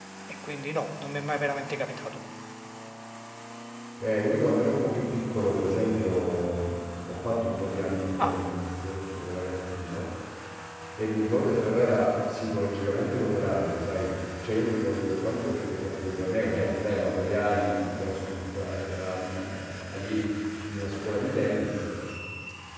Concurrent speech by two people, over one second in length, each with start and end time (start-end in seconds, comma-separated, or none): none